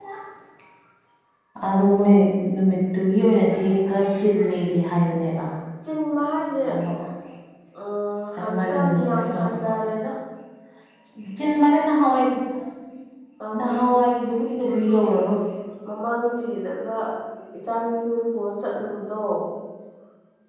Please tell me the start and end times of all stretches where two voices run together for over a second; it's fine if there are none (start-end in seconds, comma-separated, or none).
8.4-9.7